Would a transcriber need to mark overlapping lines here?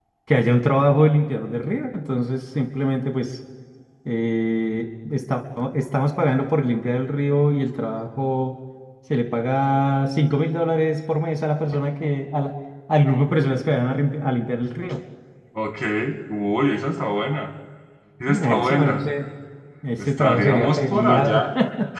Yes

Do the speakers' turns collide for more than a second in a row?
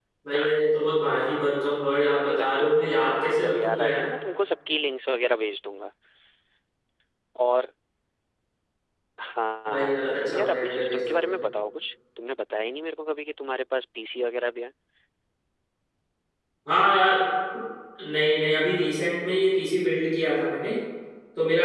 Yes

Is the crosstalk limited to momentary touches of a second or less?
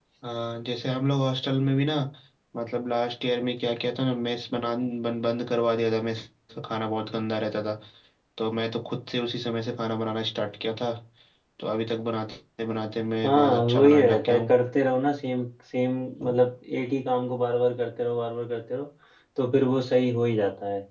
No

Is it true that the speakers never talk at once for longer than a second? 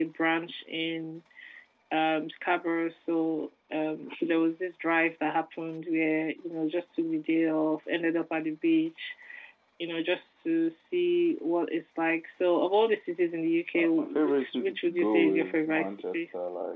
No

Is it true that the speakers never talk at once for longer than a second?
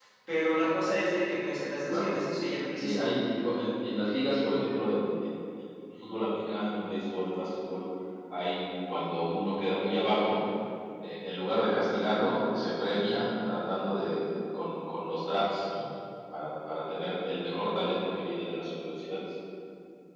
Yes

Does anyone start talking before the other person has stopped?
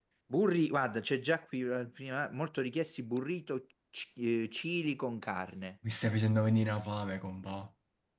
No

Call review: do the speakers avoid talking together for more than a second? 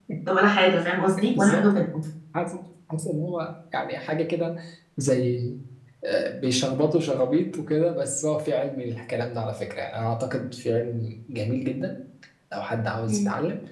Yes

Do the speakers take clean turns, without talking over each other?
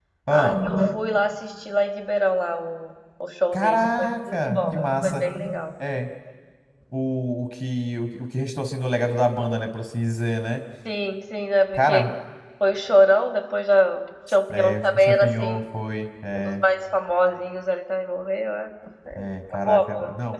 No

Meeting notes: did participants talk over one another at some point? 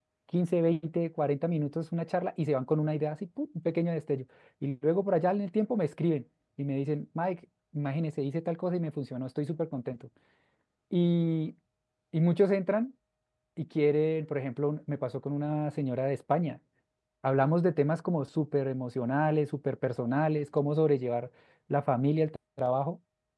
No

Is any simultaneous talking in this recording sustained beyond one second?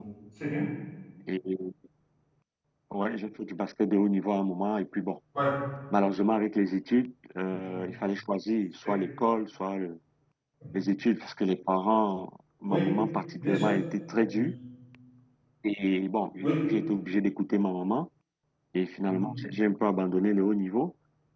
No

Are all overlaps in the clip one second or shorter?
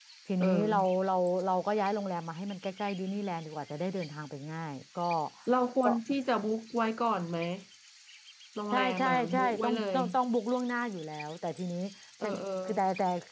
No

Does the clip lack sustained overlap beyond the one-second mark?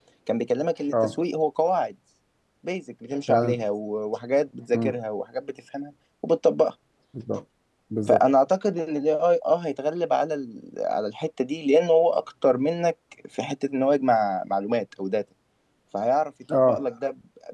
Yes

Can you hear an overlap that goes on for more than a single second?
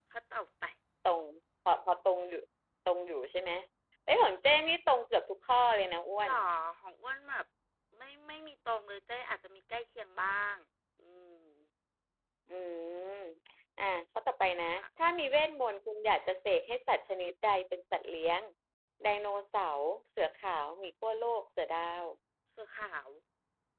No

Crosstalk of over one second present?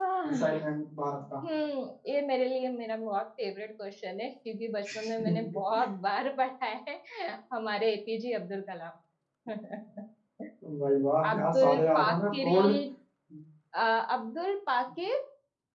Yes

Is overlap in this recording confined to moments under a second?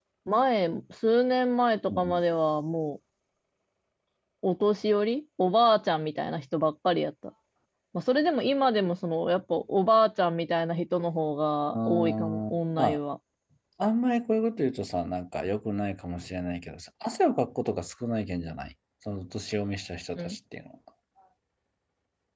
No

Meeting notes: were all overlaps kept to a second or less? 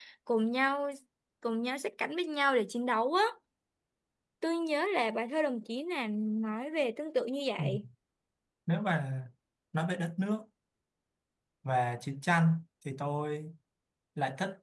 Yes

